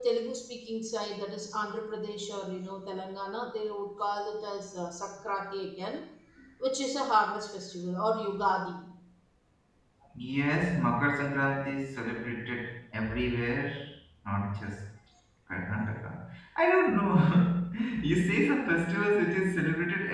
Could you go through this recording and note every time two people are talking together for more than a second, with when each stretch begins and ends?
none

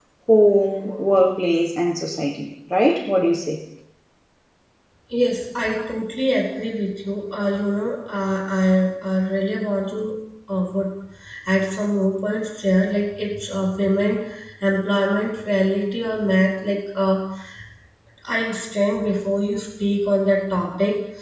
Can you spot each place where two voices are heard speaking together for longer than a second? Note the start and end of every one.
none

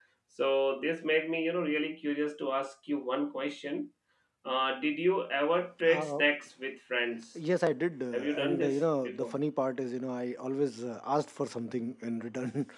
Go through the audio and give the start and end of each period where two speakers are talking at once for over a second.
8.1-9.3

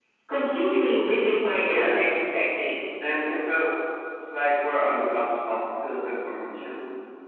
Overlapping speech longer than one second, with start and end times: none

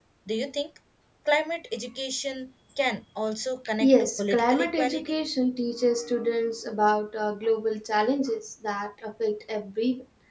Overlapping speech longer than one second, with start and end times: 3.8-5.1

